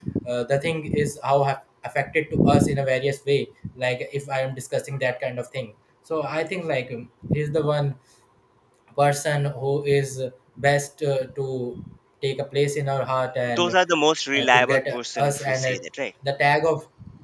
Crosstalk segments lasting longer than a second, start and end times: 14.3-15.8

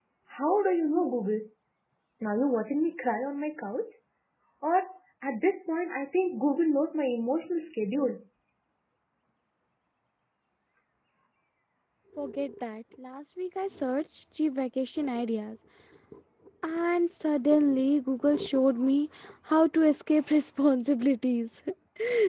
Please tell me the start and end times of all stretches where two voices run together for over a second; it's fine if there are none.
none

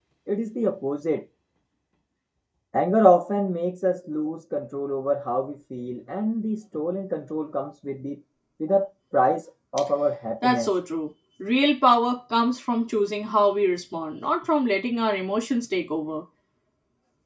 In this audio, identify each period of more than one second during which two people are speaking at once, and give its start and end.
none

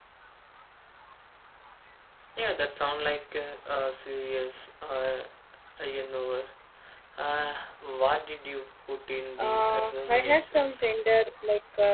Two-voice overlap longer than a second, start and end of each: 9.4-10.8

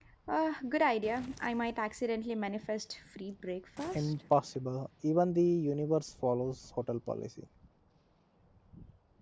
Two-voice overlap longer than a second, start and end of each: none

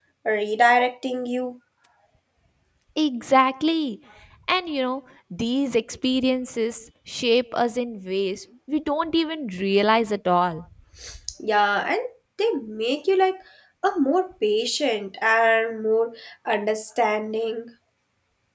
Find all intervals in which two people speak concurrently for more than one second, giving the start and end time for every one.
none

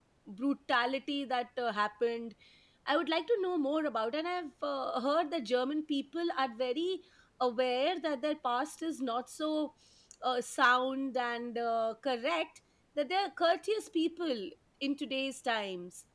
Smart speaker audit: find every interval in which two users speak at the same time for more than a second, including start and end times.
none

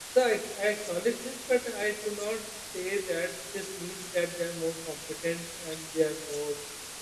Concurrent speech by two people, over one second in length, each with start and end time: none

